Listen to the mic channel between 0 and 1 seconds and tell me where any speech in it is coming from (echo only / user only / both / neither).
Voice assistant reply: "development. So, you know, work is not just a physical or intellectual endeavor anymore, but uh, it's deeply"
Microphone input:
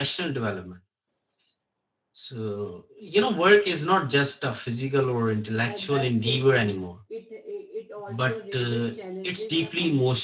echo only